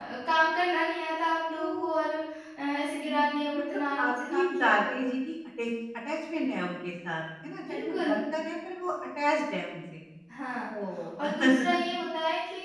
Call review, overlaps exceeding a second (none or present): present